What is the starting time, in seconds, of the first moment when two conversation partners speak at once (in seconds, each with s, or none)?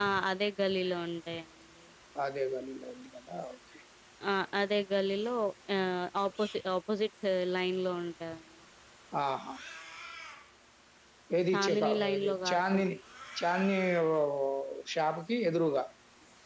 11.5 s